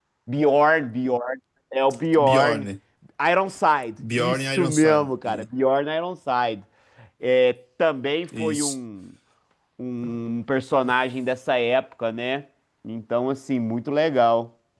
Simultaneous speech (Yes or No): Yes